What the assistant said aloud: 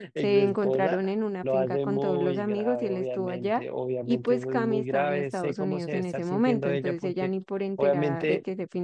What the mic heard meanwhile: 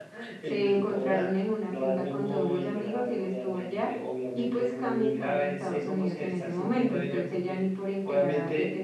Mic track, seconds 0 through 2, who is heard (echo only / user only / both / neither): echo only